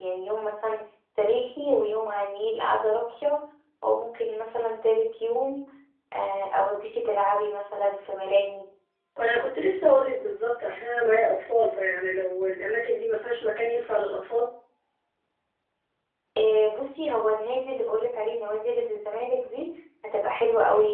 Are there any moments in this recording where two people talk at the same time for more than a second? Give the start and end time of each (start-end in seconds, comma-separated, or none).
none